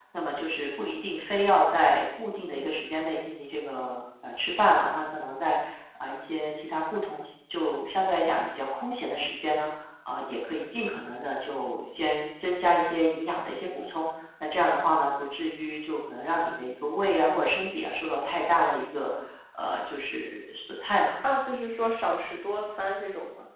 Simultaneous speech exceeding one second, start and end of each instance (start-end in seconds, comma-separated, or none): none